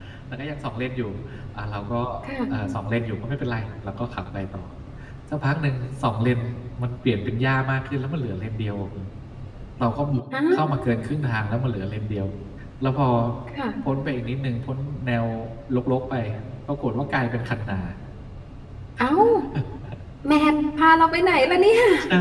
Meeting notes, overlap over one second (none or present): none